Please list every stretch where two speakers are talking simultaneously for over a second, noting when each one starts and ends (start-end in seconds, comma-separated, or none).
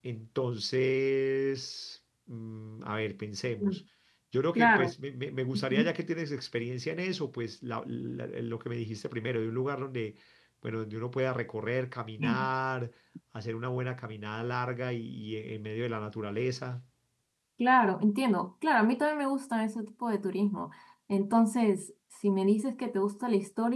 none